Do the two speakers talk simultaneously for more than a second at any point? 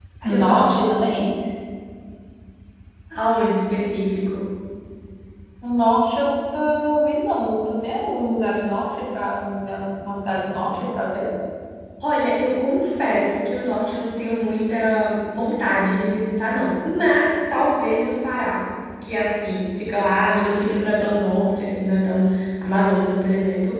No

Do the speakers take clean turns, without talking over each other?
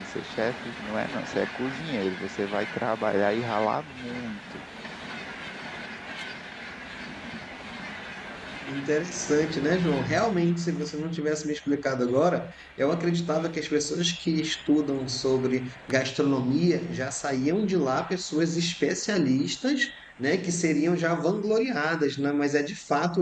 Yes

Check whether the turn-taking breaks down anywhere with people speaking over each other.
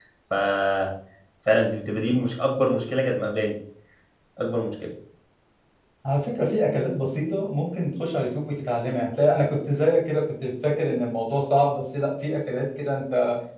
No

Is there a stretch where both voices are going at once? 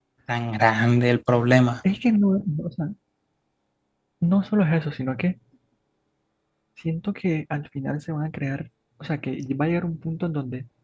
No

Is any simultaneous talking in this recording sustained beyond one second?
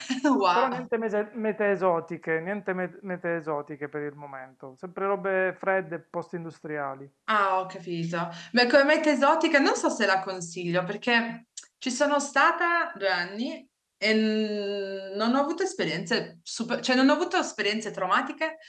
No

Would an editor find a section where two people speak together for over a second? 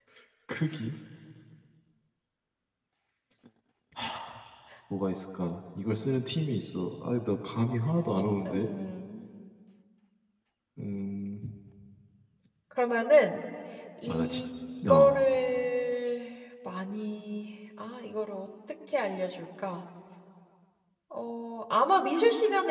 No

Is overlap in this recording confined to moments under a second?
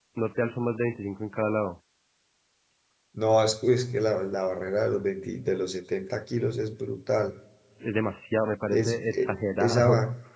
No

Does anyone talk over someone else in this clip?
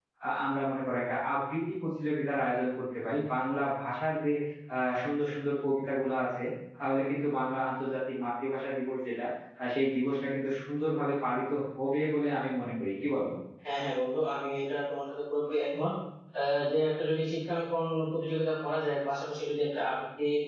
No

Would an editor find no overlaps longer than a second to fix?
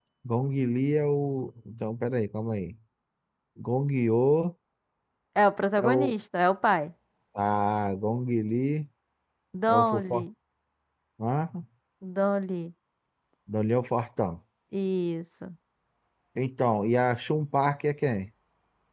Yes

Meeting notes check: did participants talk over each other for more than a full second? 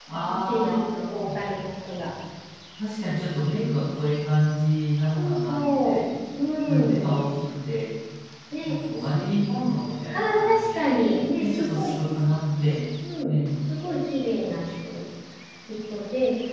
Yes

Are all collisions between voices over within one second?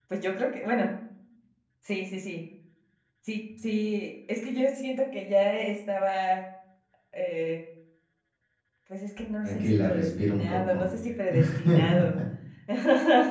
No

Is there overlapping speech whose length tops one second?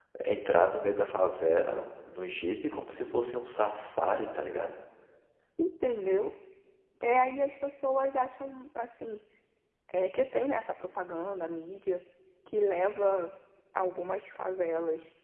No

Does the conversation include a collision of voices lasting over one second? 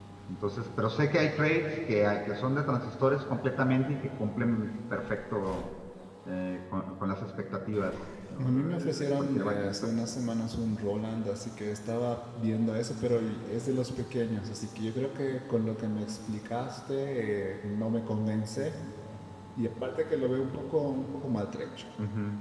Yes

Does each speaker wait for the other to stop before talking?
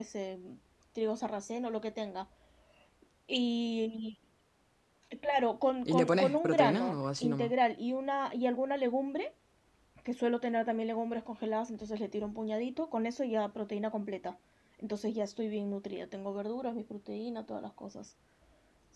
No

